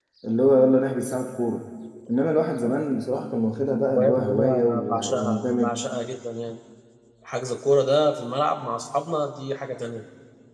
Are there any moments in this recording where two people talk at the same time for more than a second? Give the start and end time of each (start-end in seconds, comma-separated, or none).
3.6-5.7